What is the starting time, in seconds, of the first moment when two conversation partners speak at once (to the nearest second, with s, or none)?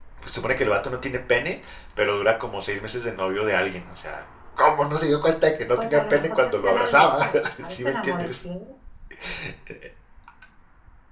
6 s